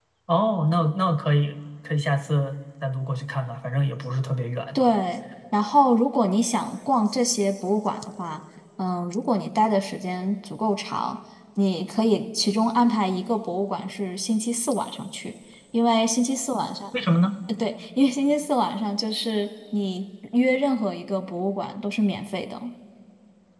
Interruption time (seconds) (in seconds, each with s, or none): none